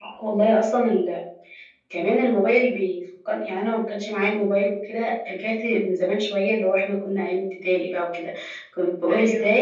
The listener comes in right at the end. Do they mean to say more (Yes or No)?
No